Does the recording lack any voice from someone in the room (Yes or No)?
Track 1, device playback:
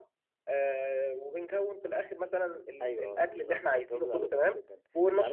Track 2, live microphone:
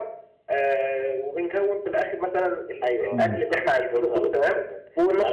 No